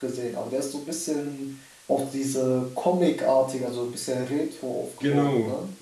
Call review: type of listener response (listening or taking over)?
taking over